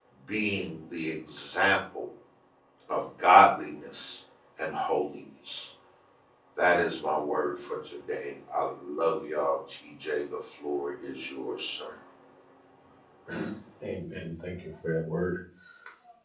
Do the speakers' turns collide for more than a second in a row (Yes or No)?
No